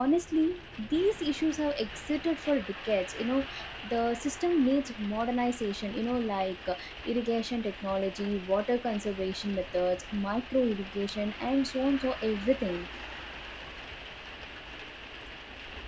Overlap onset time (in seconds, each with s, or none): none